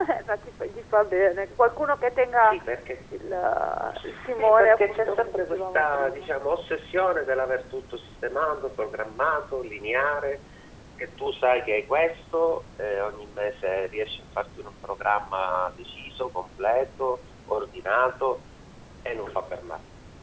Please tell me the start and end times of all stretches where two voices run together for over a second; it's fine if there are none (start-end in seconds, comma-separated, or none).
4.0-6.3